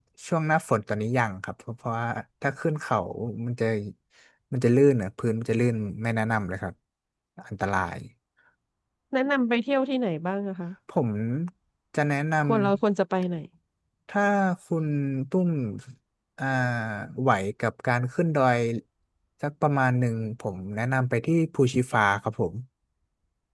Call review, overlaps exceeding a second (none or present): none